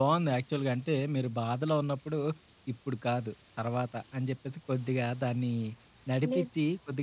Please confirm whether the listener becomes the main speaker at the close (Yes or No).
No